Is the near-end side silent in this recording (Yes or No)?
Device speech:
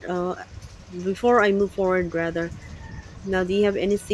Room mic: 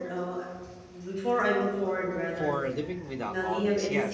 No